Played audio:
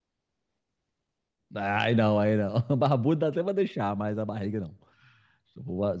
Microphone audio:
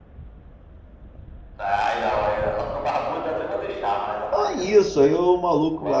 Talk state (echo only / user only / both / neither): both